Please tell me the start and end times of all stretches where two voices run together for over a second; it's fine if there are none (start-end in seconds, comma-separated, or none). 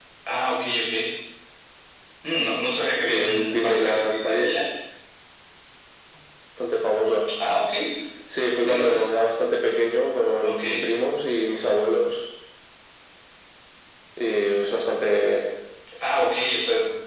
3.0-4.6